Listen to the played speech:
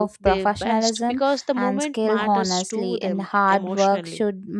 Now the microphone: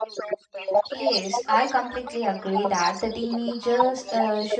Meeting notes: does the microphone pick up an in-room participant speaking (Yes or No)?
Yes